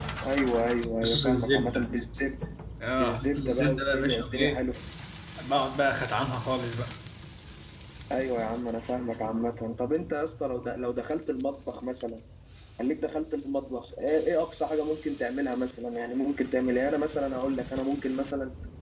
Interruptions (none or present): present